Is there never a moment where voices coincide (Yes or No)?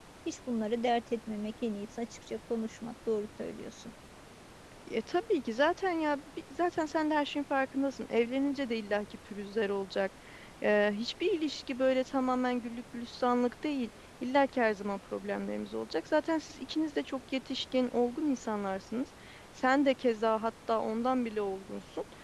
Yes